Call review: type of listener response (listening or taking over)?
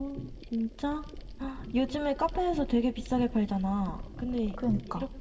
listening